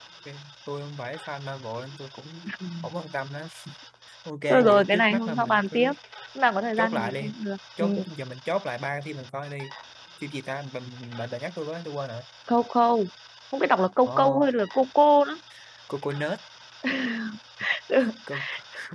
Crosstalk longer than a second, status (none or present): present